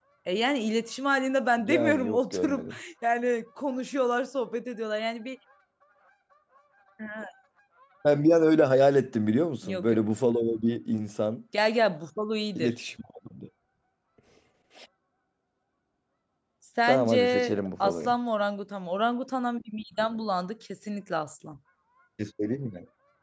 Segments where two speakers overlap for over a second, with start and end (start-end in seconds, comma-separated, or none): 1.6-2.8, 16.9-18.1